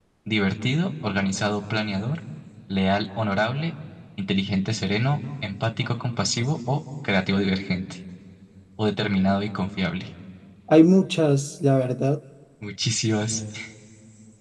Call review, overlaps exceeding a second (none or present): none